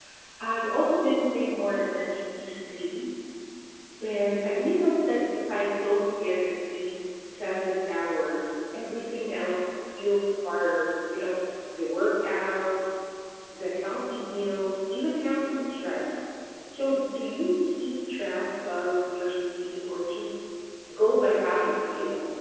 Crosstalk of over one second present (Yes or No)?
No